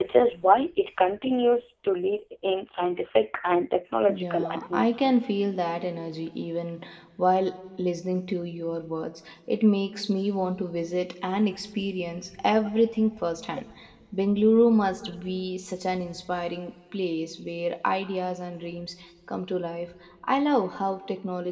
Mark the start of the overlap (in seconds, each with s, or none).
4.1 s